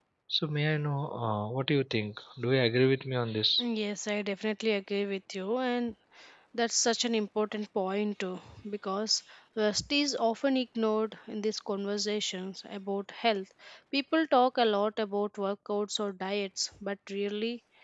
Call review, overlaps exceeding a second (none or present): none